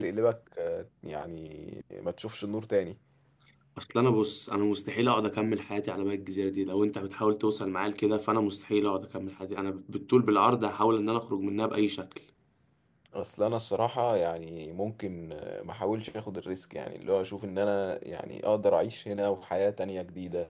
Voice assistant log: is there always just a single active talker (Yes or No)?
Yes